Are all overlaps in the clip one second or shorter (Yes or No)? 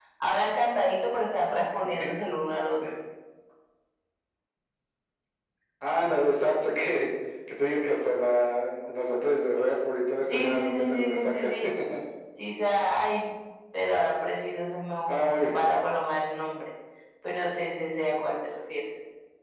No